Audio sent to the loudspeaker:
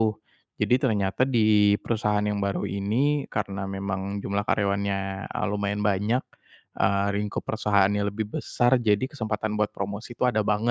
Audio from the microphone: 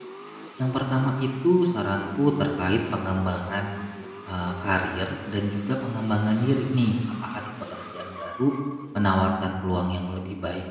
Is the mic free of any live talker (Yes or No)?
No